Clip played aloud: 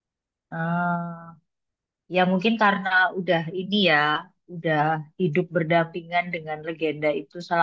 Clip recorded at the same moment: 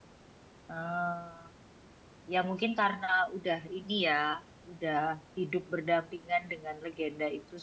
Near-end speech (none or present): none